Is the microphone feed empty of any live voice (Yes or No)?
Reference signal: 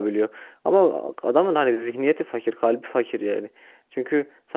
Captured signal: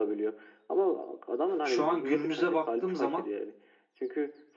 No